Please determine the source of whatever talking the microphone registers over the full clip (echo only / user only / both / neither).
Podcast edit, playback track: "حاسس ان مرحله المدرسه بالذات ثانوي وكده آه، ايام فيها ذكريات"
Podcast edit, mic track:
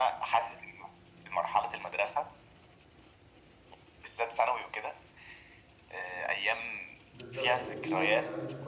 both